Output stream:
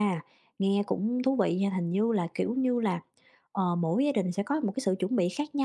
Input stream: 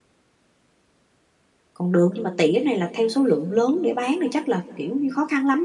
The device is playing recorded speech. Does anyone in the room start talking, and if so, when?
1.7 s

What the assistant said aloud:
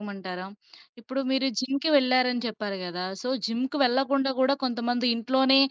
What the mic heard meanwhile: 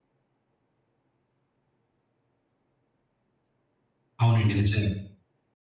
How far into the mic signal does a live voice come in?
4.2 s

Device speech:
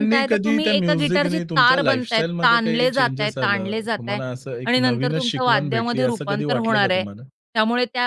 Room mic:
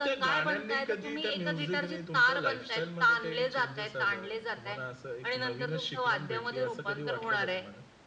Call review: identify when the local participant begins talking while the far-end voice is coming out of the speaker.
none

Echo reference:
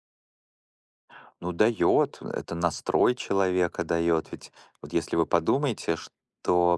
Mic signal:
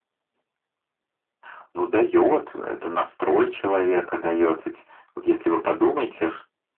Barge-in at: none

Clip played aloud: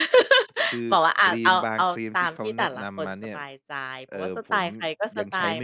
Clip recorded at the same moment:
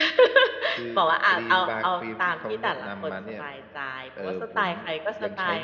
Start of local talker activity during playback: none

